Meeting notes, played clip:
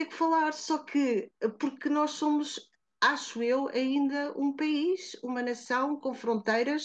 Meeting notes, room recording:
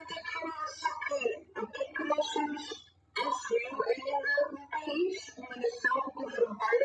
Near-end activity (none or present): none